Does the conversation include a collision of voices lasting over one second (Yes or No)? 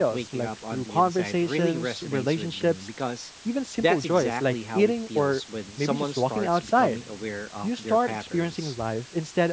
Yes